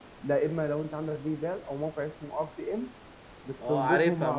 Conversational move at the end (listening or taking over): taking over